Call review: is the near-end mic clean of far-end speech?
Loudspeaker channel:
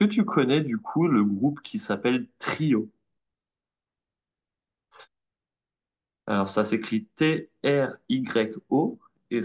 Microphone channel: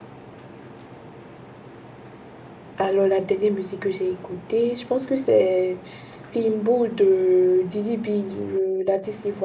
Yes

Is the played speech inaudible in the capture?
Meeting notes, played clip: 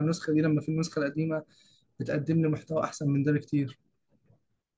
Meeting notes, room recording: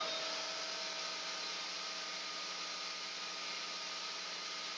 Yes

